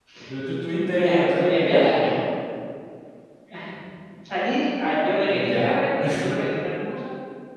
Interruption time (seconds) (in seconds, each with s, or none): 0.9 s